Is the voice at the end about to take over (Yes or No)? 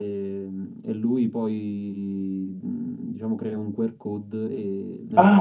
Yes